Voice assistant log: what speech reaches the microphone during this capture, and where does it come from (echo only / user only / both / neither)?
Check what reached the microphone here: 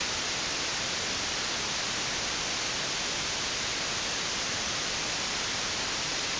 neither